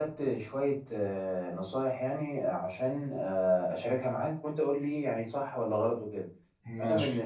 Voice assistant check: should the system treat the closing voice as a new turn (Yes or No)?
No